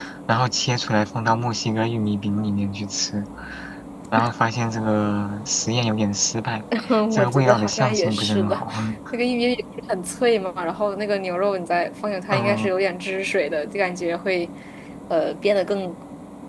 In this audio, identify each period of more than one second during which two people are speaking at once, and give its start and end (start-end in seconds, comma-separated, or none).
7.1-8.5